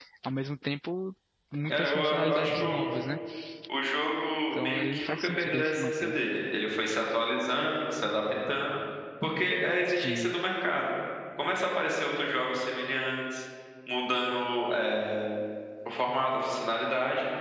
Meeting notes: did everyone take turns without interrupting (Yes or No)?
No